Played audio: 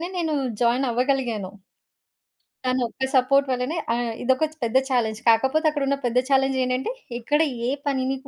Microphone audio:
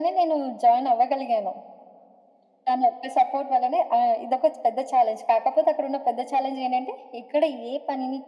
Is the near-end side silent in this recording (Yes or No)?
Yes